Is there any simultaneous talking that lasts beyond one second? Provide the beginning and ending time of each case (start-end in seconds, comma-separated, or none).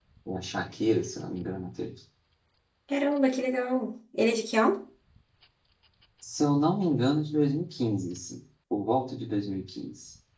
none